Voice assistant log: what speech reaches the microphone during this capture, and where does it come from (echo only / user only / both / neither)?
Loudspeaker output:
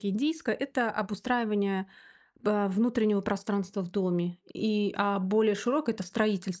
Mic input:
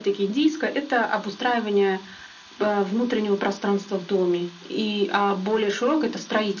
echo only